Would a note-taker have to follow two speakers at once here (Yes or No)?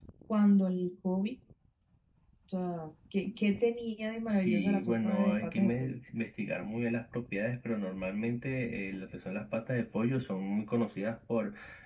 Yes